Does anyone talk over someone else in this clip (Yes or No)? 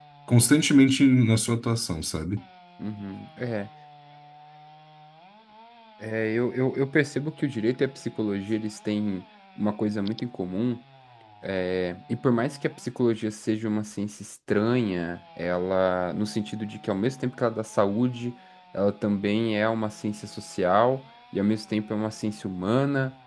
No